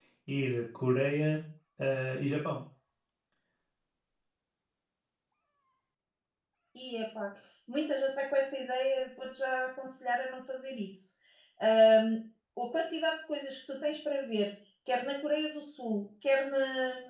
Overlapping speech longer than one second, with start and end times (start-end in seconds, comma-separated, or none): none